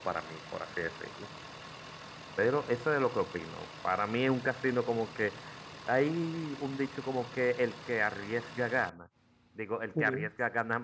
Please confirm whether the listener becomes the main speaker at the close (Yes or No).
No